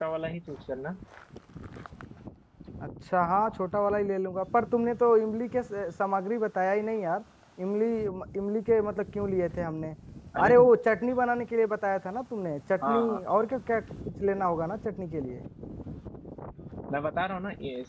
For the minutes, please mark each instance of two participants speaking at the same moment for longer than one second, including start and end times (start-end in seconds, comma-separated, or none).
none